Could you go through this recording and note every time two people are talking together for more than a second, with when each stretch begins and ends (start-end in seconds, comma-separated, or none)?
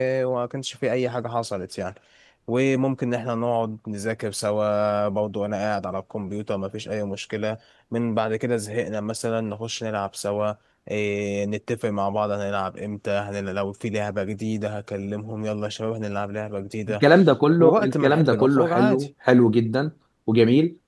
17.6-19.1